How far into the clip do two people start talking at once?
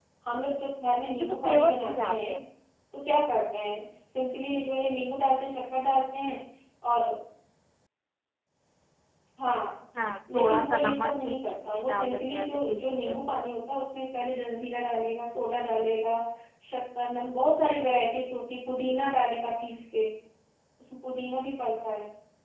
1.0 s

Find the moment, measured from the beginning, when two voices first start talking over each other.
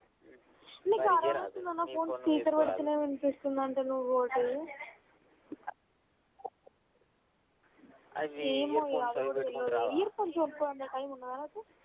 1.0 s

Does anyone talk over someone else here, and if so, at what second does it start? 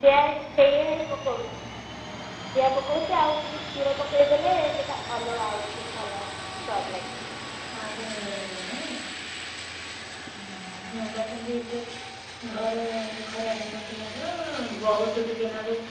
none

